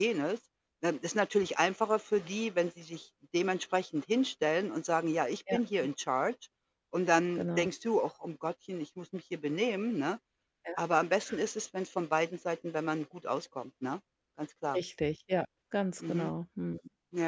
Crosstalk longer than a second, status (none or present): none